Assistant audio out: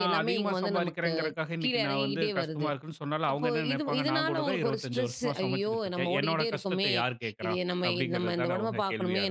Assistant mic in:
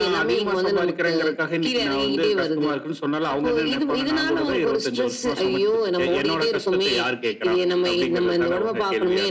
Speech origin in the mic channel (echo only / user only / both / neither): echo only